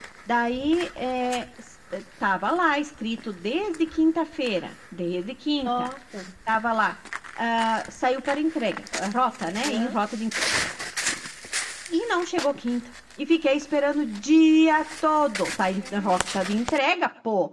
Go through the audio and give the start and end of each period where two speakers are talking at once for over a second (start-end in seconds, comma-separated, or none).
none